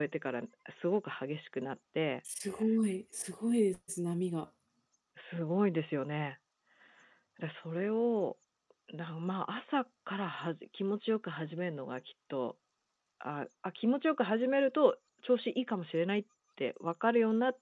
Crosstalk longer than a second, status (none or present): none